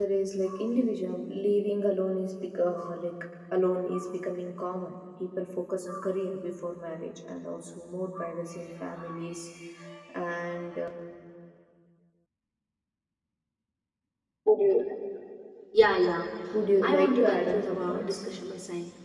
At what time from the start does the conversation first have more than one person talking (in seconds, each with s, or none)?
16.8 s